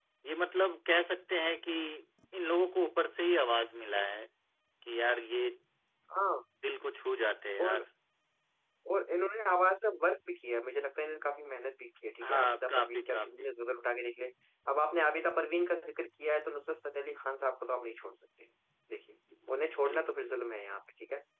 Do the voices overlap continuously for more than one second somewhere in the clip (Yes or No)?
Yes